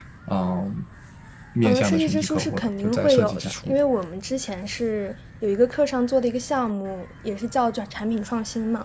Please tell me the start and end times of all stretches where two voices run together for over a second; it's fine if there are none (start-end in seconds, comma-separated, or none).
1.6-3.8